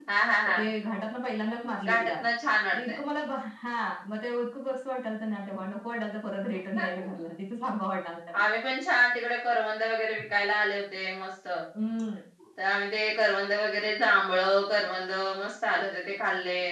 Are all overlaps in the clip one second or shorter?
Yes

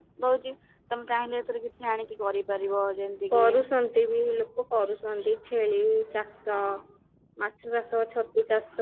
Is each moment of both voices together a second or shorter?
Yes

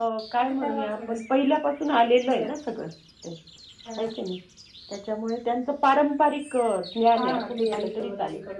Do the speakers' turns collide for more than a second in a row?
Yes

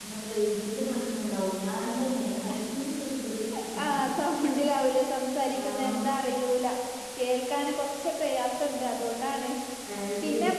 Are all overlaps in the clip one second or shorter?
Yes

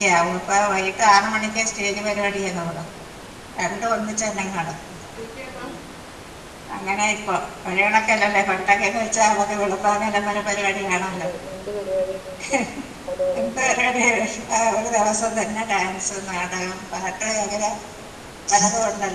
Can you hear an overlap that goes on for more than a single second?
No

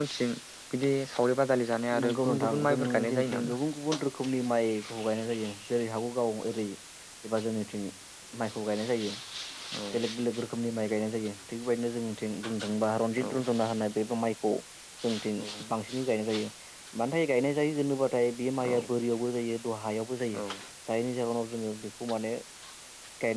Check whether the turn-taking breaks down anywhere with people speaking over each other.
Yes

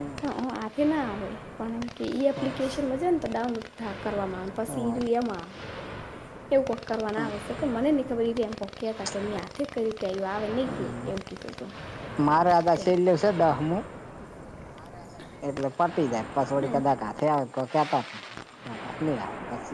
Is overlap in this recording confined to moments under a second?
Yes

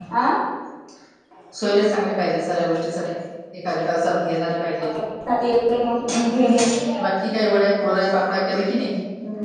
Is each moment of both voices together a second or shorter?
Yes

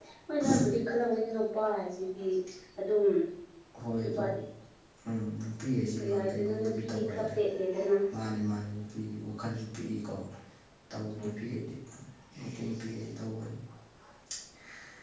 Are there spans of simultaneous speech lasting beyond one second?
Yes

